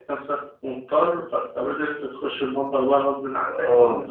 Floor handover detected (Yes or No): Yes